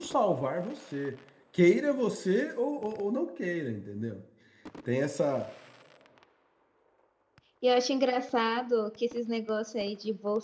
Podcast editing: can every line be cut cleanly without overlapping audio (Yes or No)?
Yes